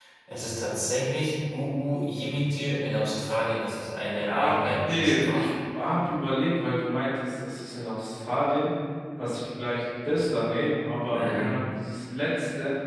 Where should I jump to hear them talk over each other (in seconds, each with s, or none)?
4.3 s